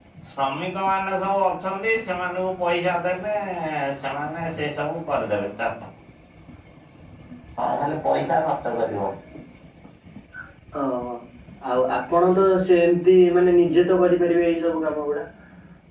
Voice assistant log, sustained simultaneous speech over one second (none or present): none